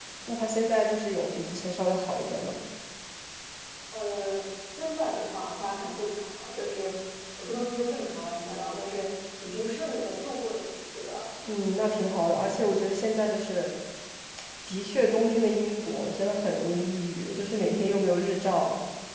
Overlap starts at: none

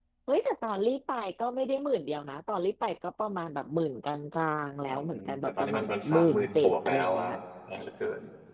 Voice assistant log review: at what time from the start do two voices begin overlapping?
4.9 s

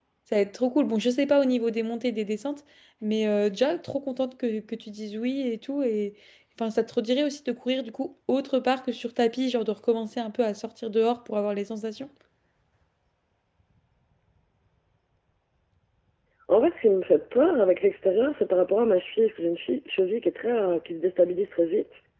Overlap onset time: none

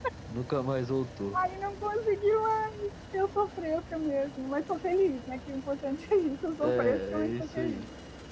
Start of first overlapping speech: 6.6 s

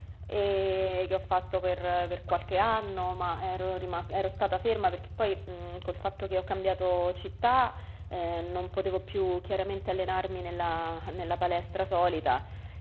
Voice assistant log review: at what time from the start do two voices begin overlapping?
none

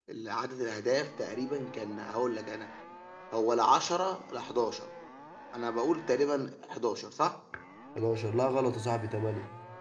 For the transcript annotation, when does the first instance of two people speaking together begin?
none

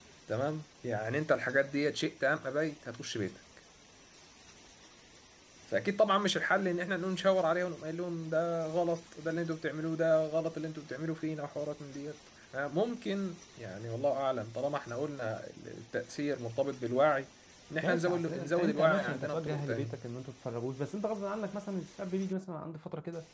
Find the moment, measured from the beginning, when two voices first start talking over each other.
17.8 s

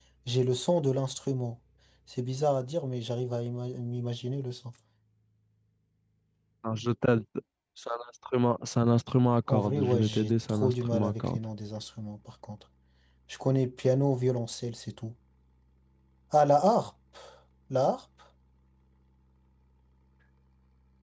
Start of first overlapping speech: 9.5 s

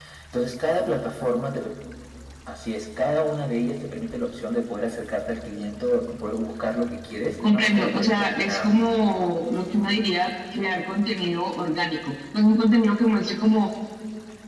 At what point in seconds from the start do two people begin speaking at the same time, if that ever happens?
7.4 s

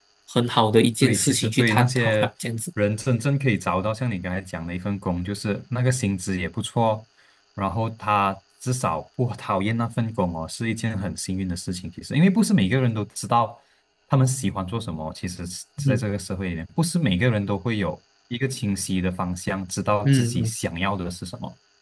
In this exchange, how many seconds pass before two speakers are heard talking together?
1.0 s

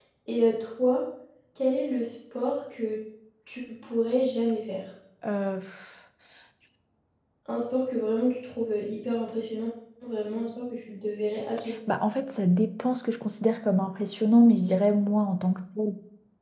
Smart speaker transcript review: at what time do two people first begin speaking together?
none

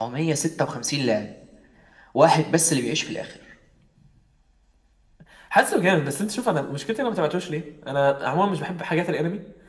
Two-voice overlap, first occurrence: none

